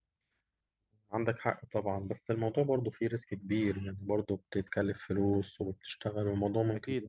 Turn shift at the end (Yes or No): Yes